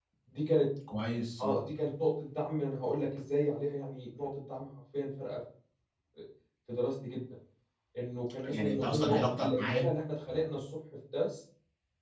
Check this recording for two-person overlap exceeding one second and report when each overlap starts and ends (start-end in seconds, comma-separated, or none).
8.4-9.9